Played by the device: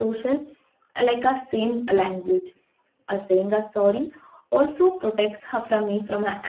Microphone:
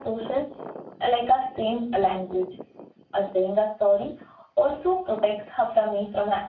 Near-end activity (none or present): none